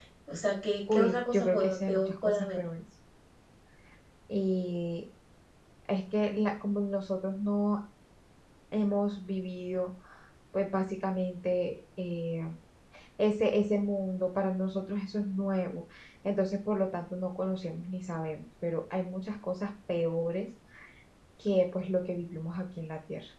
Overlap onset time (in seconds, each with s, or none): 0.9 s